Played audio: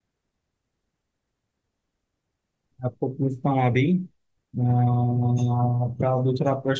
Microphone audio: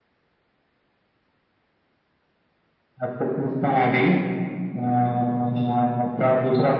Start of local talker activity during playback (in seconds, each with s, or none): none